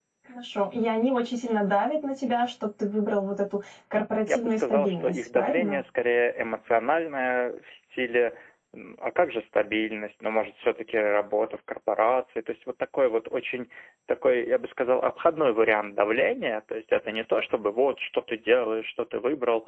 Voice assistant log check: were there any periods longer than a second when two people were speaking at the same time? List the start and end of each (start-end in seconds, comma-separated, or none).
4.3-5.8